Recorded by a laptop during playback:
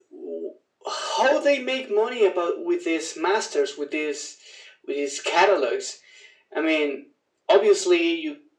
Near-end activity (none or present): none